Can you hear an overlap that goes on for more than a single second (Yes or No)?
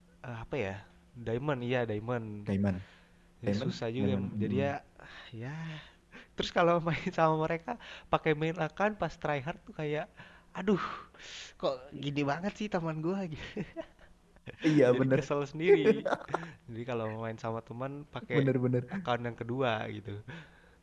Yes